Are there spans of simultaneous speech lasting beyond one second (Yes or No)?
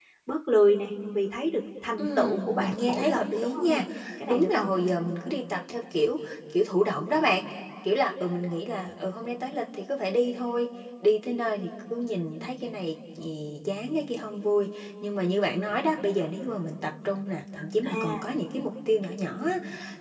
Yes